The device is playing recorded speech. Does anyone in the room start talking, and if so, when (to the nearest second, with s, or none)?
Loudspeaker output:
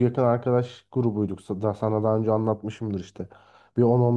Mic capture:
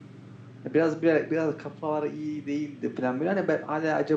1 s